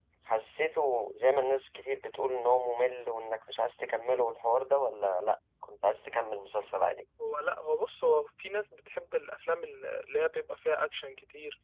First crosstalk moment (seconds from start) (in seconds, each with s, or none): none